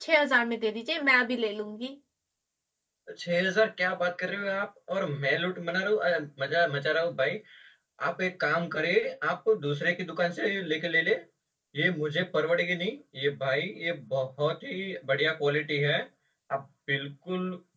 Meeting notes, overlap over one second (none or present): none